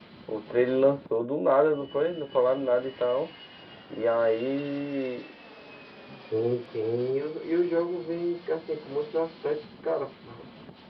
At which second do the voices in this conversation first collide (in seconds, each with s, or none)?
none